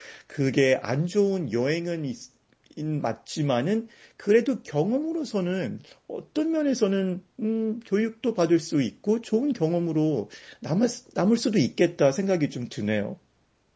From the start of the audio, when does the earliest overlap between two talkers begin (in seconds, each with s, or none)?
none